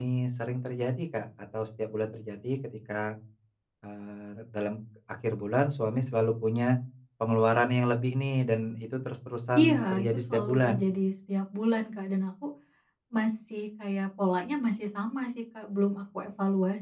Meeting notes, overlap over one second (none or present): present